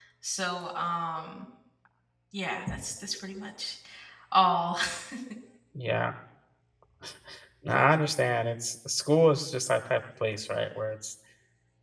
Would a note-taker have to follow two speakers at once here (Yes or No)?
No